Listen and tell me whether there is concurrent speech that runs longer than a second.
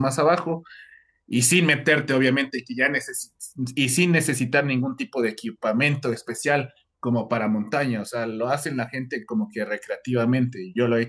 No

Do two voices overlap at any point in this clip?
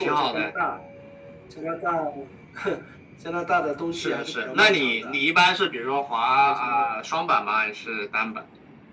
Yes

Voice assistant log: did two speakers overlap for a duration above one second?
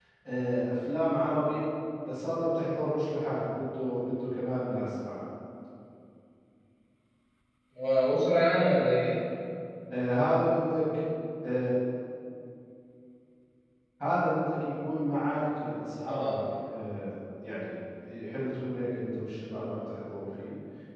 No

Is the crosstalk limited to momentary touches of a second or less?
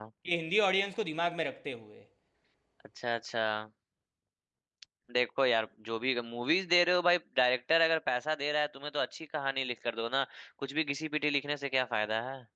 Yes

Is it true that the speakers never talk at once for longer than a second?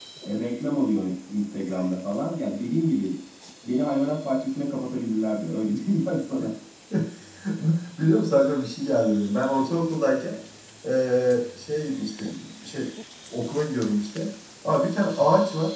Yes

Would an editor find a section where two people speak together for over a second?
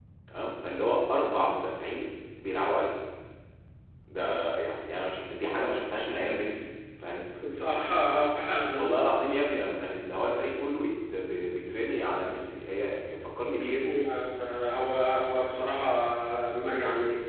No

